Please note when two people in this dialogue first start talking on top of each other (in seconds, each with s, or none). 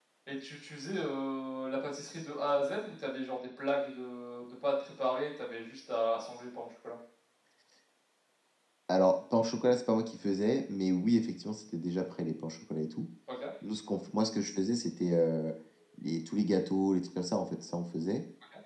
none